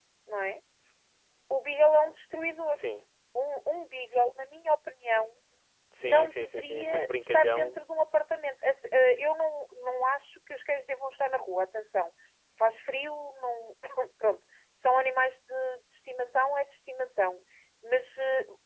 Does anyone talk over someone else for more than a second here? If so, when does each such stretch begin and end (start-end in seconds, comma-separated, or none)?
6.0-7.8